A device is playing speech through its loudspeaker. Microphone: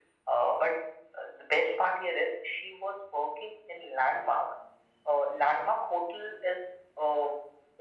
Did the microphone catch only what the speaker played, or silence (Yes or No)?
Yes